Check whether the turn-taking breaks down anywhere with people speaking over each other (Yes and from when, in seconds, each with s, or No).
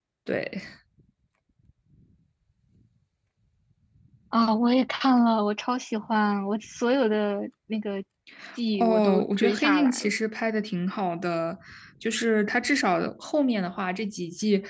Yes, from 8.8 s